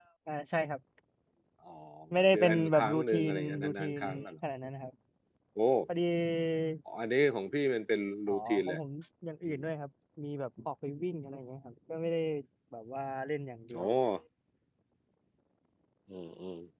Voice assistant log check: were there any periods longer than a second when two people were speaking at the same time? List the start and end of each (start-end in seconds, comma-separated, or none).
2.3-4.0